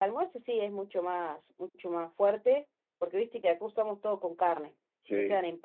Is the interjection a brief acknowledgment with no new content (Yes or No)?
Yes